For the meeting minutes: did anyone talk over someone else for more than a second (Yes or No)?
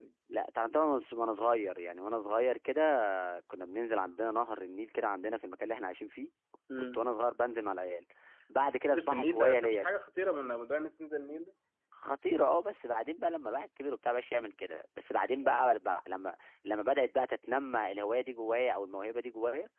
Yes